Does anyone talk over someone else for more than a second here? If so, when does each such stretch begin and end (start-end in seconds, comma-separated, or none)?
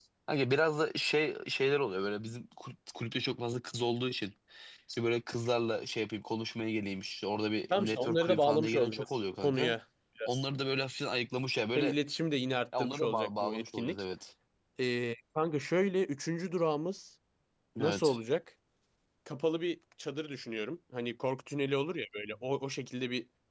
7.7-9.7, 12.8-14.0